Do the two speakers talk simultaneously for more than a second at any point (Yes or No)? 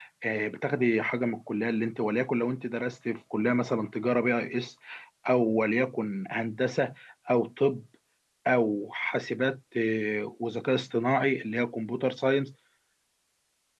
No